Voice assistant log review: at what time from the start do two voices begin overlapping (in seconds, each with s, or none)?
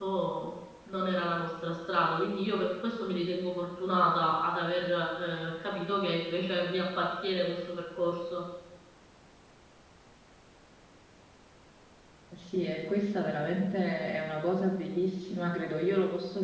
none